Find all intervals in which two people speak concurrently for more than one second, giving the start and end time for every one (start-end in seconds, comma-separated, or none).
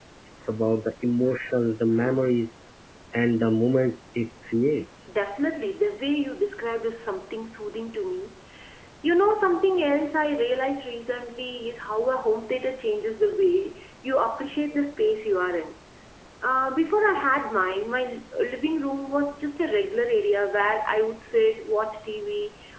none